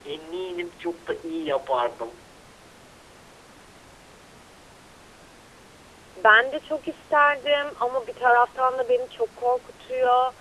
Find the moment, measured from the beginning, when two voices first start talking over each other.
none

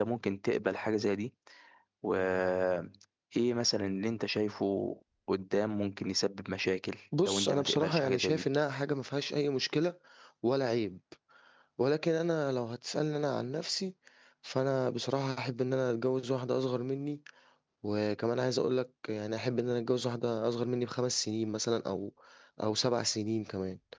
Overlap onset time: 7.1 s

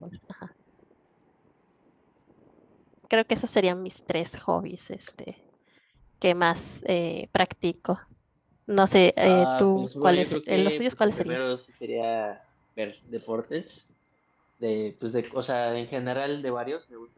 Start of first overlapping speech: 9.2 s

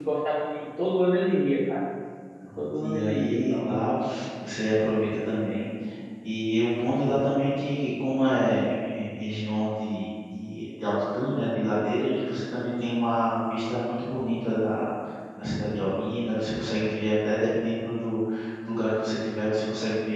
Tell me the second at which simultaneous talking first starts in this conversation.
2.6 s

